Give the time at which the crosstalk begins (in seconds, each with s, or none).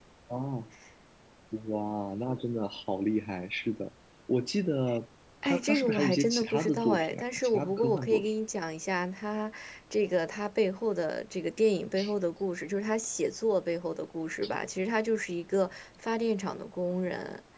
5.4 s